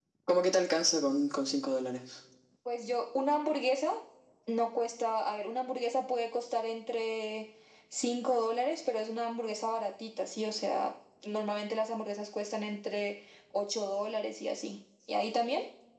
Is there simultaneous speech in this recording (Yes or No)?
No